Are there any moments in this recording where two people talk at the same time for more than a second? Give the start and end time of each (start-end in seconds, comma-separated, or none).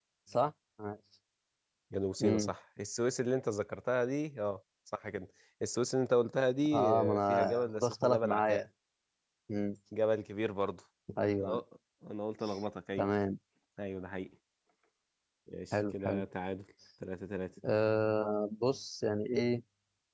6.7-8.6